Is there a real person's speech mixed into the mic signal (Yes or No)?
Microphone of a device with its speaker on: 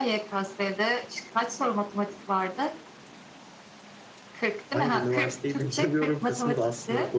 Yes